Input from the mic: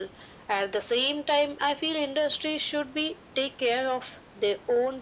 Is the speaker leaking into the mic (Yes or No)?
Yes